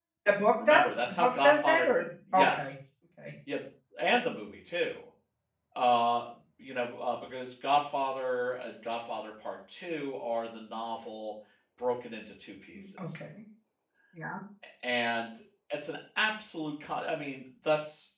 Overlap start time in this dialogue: 1 s

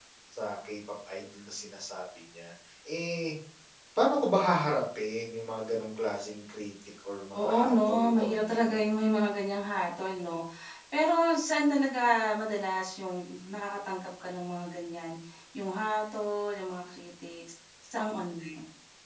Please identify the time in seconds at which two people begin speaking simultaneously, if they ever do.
7 s

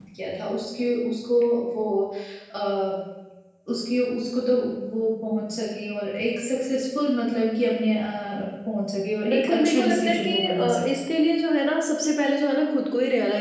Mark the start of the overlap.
9 s

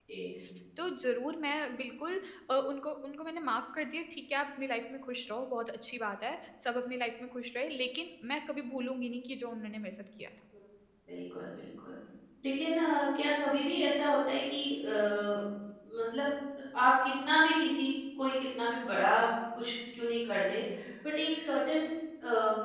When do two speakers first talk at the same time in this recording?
none

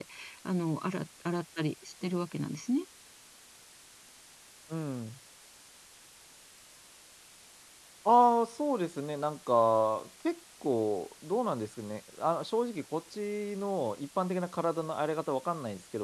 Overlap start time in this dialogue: none

